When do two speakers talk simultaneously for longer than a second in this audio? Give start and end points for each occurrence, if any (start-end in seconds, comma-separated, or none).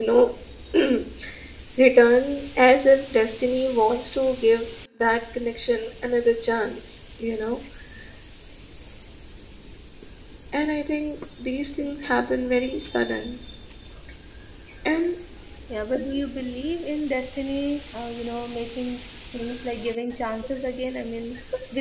none